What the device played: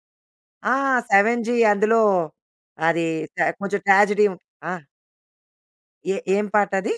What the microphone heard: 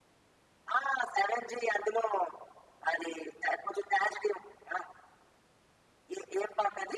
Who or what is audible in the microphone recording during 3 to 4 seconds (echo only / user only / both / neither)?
echo only